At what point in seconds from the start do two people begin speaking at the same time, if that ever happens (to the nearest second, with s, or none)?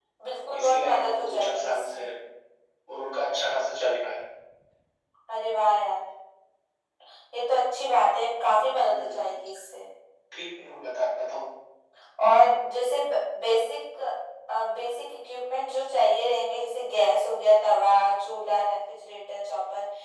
1 s